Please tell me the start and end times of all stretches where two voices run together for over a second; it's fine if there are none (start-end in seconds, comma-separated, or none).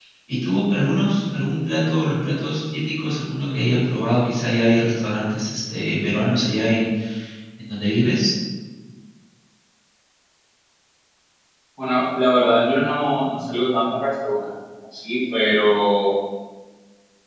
none